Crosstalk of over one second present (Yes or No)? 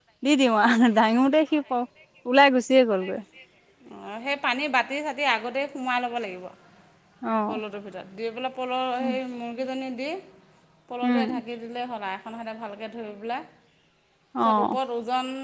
No